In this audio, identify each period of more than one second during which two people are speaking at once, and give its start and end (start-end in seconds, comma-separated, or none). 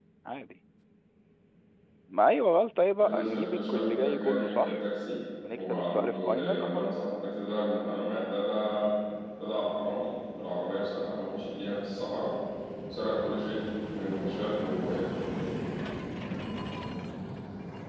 3.0-4.7, 5.6-7.0